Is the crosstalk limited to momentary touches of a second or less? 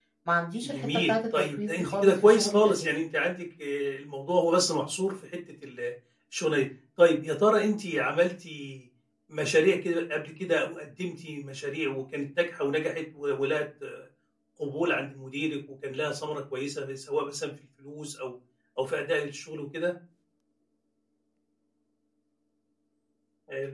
No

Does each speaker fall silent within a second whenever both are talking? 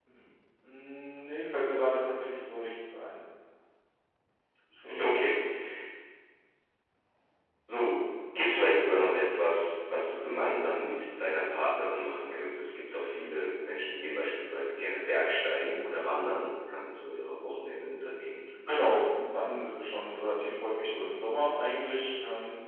Yes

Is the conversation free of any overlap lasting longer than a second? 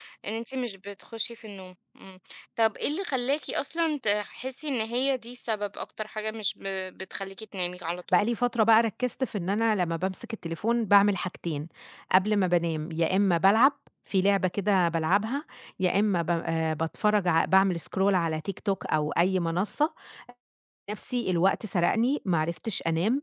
Yes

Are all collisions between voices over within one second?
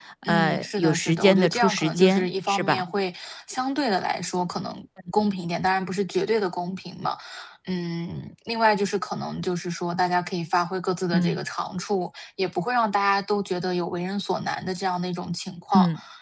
No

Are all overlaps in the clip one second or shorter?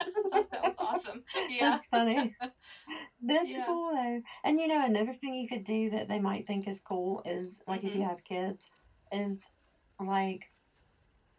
Yes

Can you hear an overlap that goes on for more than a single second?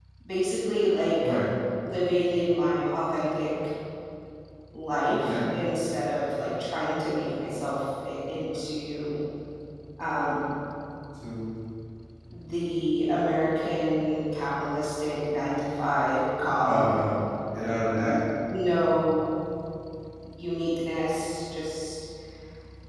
No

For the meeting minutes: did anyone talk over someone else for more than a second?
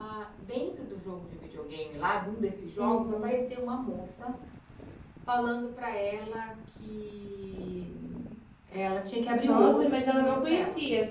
Yes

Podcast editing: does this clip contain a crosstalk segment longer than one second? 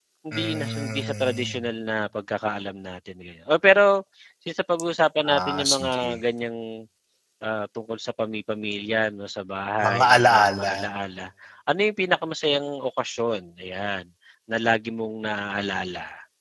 Yes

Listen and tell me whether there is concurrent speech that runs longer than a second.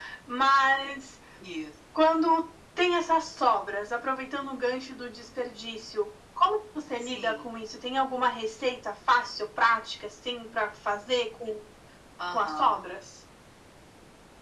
No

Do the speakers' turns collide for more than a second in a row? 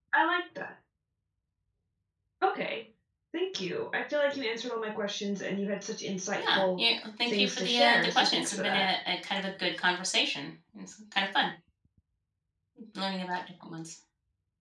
Yes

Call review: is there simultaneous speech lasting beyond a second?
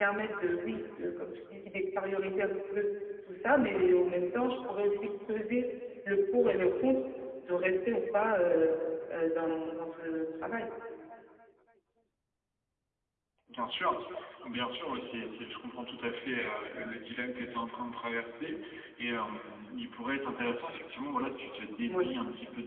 No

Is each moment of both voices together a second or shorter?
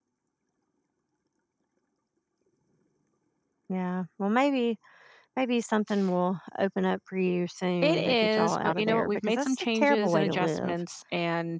No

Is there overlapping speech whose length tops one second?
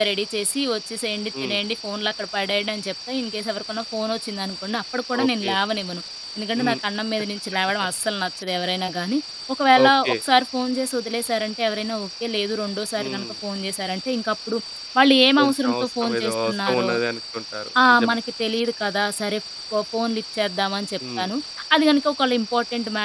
Yes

